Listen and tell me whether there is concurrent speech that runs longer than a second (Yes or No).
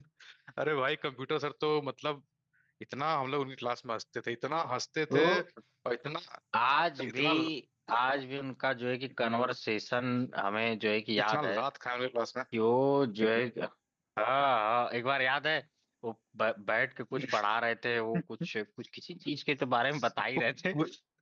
No